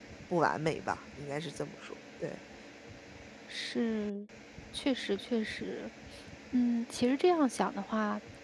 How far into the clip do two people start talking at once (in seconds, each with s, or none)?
none